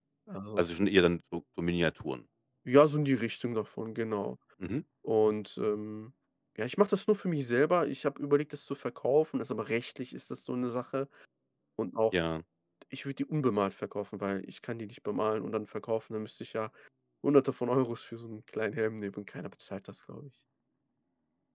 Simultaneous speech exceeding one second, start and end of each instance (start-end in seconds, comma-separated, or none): none